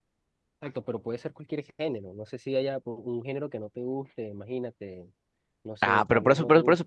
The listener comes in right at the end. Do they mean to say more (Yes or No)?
Yes